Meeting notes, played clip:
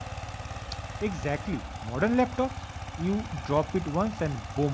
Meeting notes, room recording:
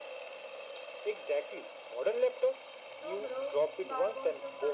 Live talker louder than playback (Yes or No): No